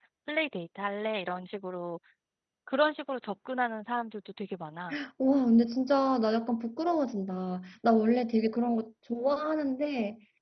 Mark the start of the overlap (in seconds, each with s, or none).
none